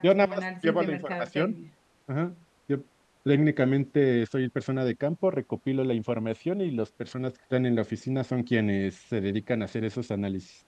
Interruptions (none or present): present